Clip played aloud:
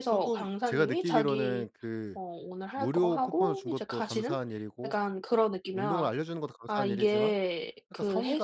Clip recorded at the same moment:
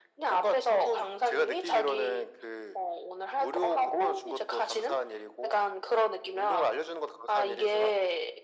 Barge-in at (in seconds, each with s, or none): none